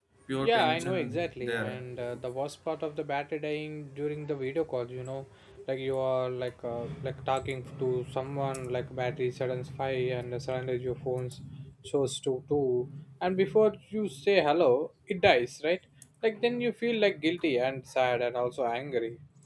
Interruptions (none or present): present